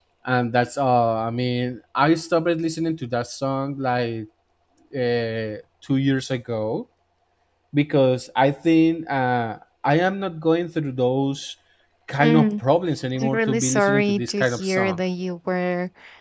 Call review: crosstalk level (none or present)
present